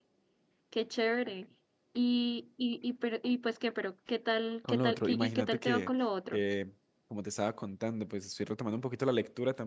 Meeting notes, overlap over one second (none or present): present